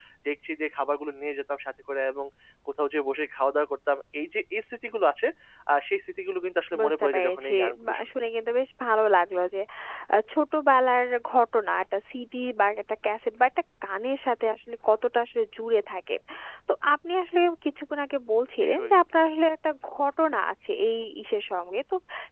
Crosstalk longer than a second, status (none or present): present